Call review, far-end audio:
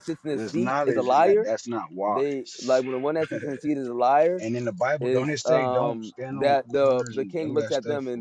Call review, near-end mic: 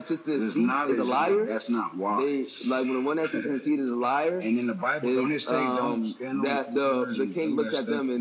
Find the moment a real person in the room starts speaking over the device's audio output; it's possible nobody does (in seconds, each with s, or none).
none